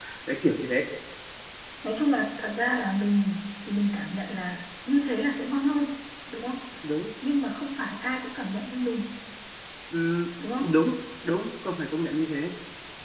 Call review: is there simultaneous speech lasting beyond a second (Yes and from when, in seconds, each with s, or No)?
No